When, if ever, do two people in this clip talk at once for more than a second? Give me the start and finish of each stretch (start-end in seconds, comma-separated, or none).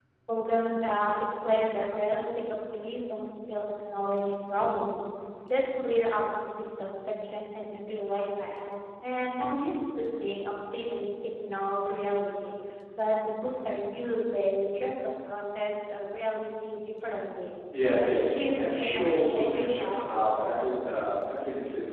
18.0-20.7